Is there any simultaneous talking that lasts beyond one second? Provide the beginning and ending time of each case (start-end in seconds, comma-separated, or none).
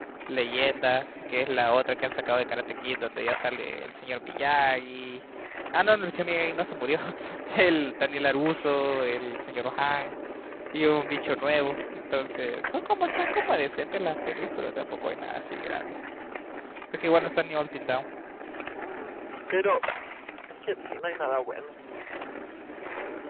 none